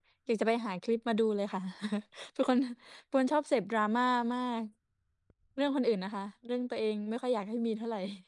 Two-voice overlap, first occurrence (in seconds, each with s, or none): none